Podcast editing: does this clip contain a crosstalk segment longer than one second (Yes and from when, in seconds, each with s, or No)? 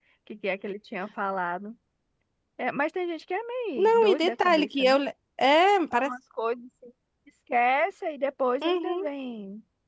Yes, from 3.8 s